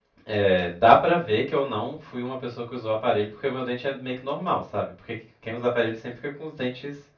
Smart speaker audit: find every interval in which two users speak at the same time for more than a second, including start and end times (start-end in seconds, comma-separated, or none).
none